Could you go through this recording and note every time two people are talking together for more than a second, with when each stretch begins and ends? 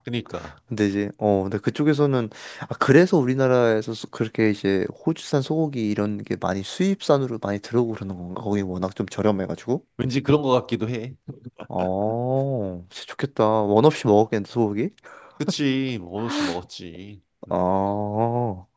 none

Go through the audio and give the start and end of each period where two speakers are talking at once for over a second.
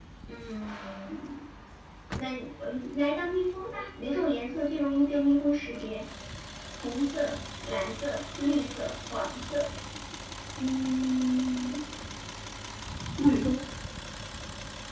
none

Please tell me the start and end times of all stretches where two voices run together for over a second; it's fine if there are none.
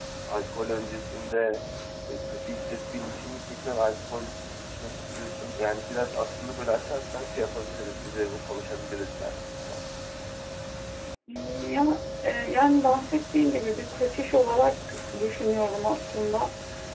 none

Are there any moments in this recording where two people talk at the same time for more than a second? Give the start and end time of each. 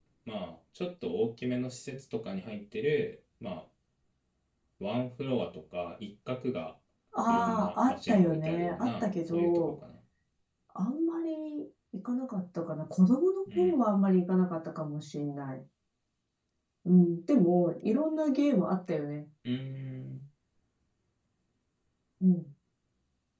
7.3-9.7

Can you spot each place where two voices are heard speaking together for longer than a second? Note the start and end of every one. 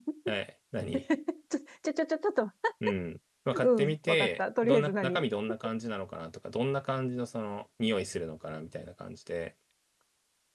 3.6-5.2

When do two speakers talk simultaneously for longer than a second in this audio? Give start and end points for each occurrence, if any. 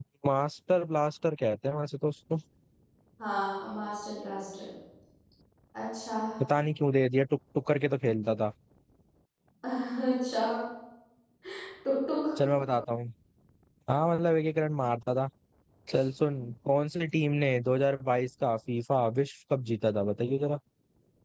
none

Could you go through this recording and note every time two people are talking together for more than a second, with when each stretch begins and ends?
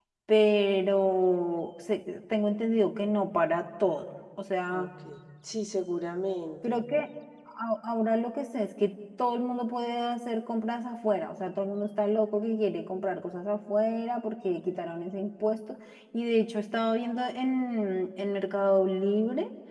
none

